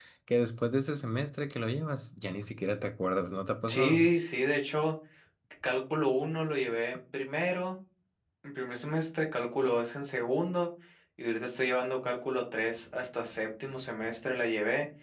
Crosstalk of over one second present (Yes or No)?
No